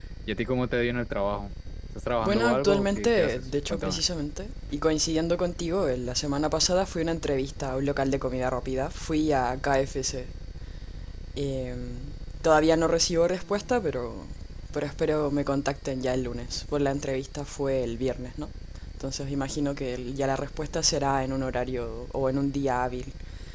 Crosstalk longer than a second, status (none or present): present